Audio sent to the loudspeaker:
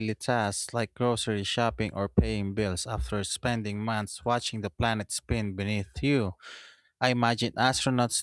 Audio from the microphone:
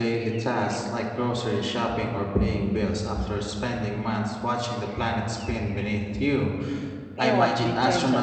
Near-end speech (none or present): present